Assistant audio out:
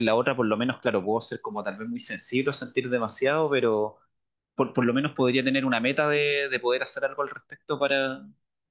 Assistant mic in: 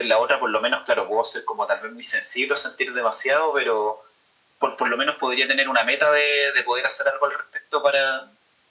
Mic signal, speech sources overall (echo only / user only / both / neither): echo only